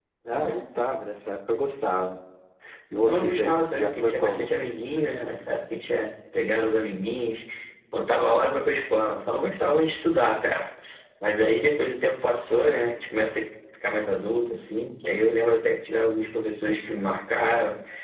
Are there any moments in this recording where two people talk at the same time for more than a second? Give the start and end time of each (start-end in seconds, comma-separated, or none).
2.9-4.5